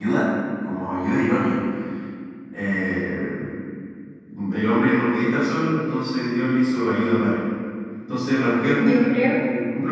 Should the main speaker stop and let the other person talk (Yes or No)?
No